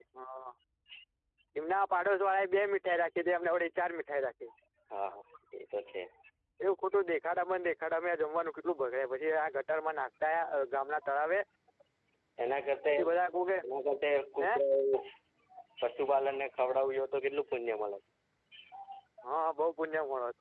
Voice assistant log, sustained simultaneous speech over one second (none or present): none